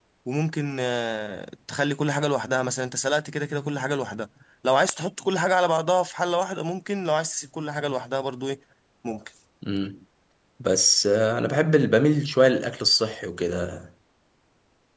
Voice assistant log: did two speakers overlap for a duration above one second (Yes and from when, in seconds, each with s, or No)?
No